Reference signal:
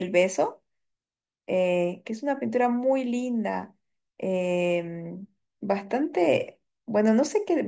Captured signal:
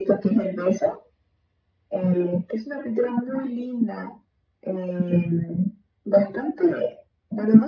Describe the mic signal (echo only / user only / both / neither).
echo only